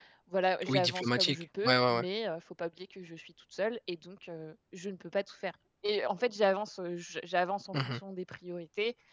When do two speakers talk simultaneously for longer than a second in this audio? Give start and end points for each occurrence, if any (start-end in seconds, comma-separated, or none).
0.7-2.0